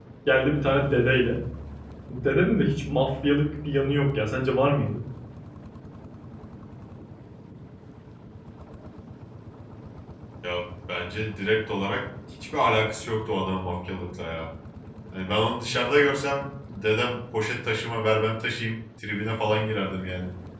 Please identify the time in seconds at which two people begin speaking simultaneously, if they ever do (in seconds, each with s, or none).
none